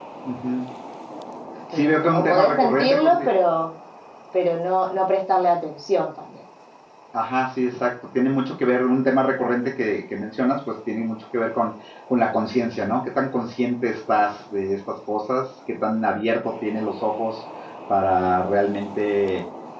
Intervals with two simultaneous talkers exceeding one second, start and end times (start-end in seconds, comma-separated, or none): 1.7-3.3